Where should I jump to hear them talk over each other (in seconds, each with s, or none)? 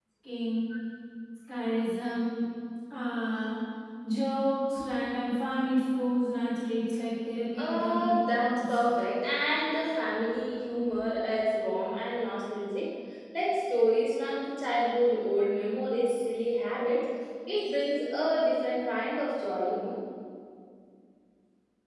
7.5 s